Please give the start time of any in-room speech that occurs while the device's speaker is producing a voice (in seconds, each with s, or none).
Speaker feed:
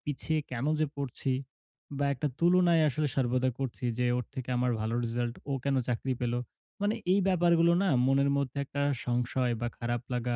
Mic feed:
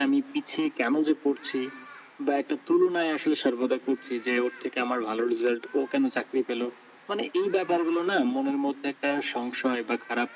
none